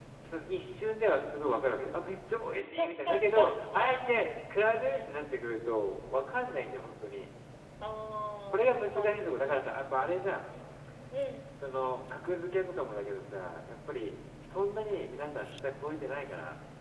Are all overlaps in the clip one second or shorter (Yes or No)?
No